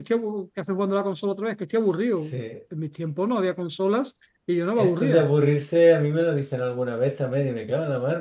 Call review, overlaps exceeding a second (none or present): none